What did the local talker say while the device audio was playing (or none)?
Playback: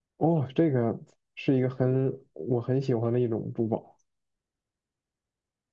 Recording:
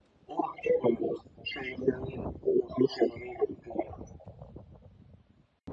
none